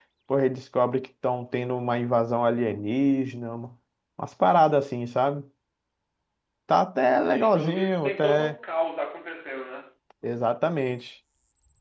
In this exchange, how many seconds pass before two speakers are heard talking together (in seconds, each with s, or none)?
7.2 s